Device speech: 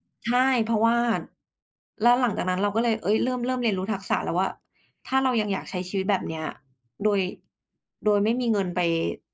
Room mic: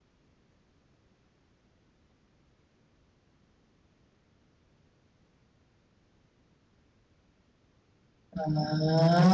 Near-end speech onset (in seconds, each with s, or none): 8.3 s